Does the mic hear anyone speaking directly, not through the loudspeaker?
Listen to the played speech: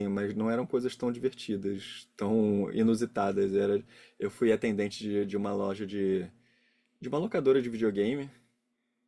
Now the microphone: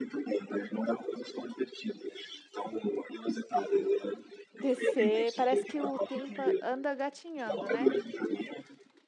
Yes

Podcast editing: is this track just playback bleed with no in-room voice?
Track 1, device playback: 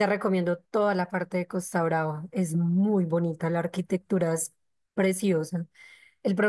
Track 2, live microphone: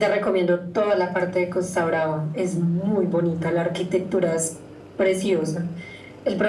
Yes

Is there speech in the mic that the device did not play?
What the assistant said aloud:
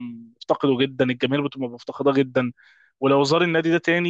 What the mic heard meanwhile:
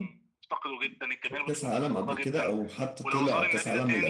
Yes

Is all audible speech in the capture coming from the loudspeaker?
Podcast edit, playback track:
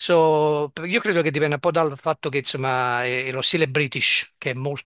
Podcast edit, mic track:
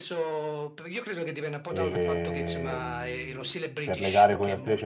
No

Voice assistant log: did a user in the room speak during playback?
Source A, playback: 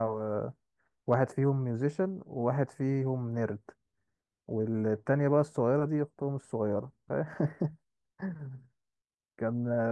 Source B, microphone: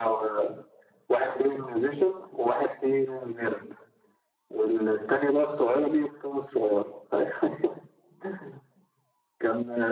No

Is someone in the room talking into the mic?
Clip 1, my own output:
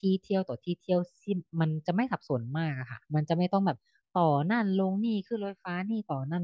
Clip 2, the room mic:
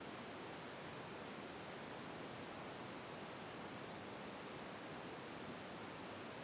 No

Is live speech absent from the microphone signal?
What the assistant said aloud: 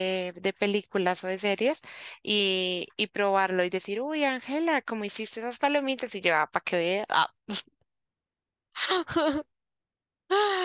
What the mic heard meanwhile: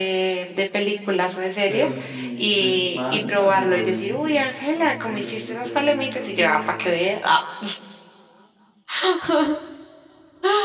No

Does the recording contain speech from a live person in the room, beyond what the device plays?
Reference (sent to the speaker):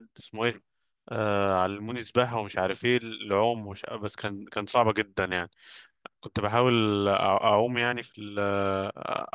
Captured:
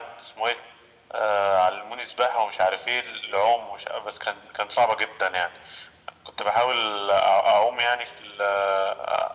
No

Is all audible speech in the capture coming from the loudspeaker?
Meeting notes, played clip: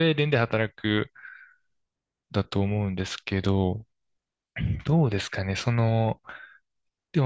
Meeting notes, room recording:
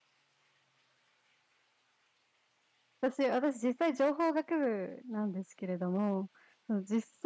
No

